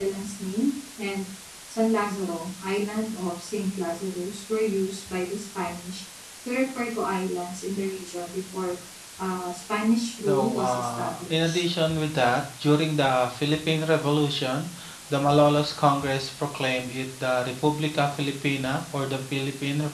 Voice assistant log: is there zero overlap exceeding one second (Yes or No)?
No